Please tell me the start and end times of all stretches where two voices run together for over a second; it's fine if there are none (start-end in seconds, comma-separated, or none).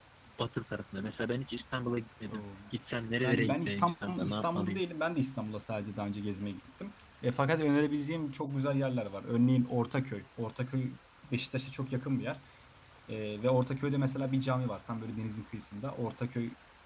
3.2-4.8